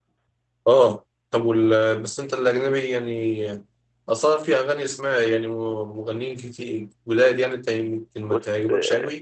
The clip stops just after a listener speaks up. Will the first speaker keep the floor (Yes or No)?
No